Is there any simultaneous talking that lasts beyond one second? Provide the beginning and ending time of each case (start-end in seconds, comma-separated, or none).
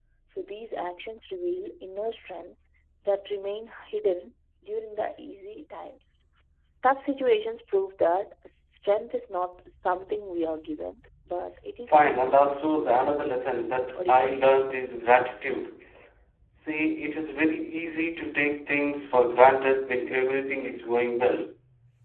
11.9-13.2